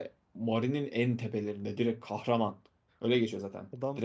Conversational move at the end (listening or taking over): taking over